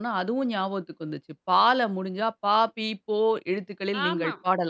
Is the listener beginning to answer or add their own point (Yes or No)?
Yes